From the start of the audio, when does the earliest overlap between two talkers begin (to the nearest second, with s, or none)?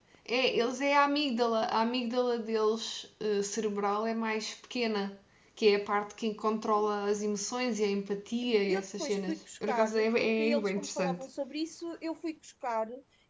9 s